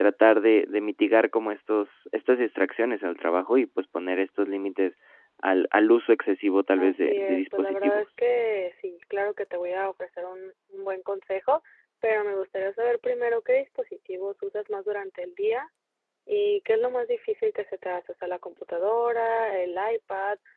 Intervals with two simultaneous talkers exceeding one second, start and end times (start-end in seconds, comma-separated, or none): 6.8-8.1